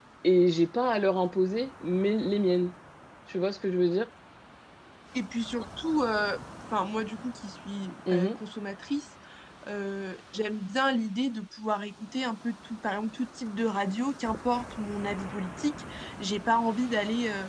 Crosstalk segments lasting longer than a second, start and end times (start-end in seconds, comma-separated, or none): none